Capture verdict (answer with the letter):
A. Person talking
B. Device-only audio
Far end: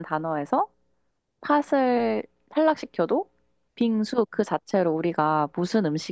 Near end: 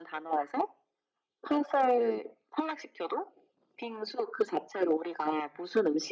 B